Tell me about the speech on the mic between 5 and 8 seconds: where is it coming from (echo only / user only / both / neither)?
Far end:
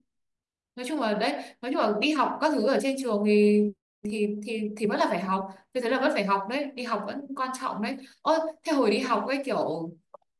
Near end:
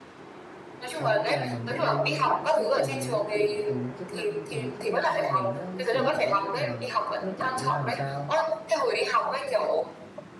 both